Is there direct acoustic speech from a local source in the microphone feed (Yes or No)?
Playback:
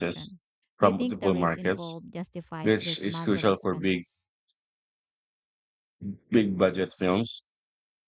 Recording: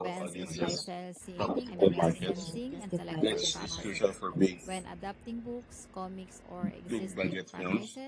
Yes